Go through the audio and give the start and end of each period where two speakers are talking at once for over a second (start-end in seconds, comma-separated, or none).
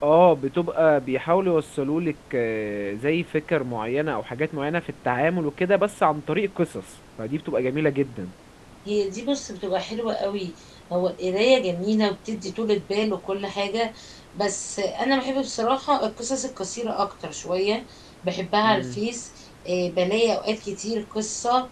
none